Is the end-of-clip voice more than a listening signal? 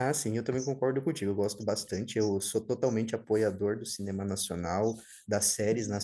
No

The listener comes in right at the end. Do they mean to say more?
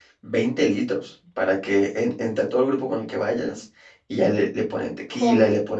No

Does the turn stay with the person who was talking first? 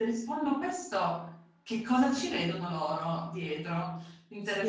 No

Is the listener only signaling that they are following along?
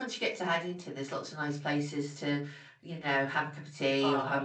No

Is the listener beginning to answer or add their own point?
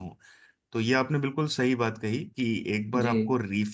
No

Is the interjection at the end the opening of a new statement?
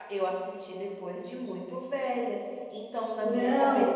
No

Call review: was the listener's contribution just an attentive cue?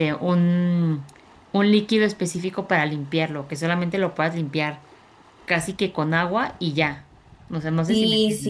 No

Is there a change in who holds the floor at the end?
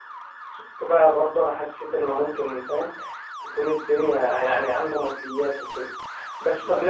No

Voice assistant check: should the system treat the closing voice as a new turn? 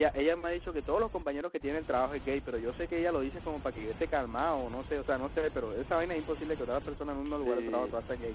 Yes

